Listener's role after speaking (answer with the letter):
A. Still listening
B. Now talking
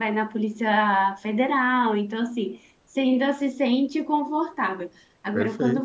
A